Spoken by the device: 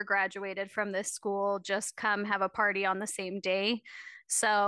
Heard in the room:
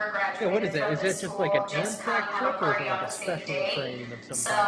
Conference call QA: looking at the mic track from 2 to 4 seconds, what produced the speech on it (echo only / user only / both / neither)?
both